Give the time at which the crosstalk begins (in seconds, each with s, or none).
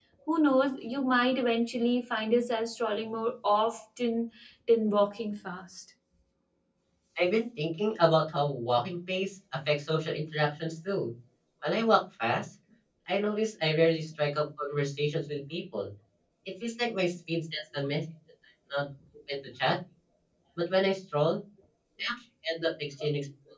none